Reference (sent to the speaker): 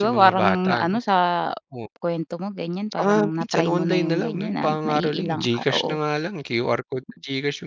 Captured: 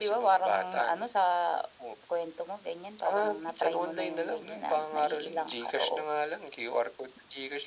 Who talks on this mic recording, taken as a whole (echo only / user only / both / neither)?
echo only